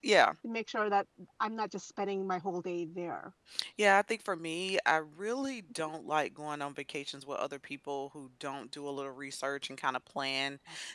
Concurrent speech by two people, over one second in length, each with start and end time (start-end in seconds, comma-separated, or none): none